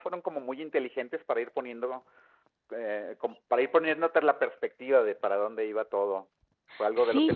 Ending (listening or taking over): listening